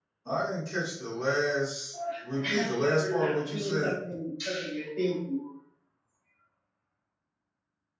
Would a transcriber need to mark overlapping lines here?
Yes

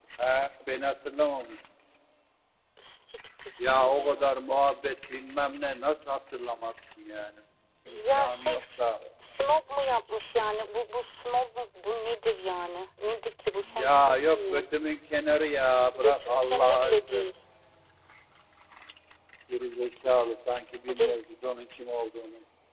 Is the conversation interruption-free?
No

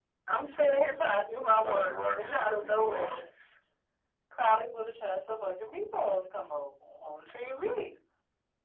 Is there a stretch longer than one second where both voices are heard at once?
Yes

